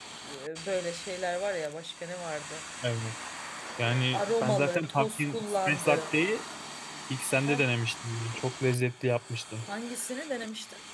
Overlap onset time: 3.8 s

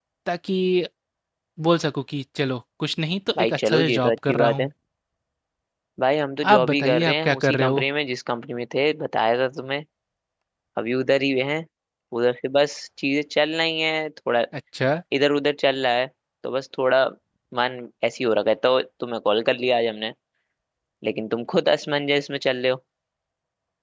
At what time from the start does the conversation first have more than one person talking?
3.4 s

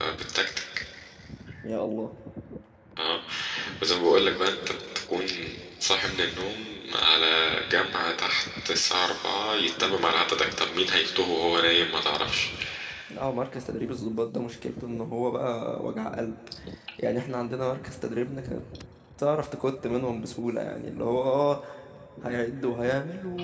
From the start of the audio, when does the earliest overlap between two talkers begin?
none

